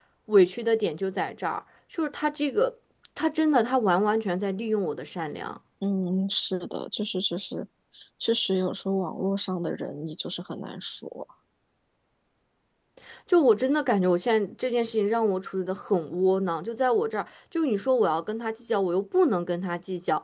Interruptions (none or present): none